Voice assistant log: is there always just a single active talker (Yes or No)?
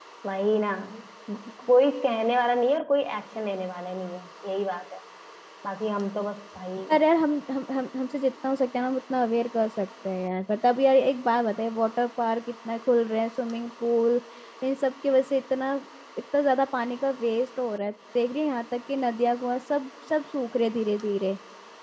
Yes